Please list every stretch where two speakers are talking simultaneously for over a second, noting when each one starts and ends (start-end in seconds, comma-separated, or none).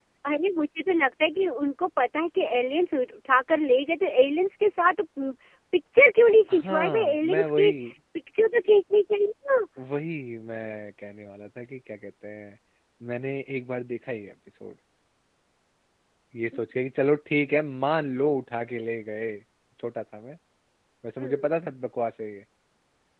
6.5-7.7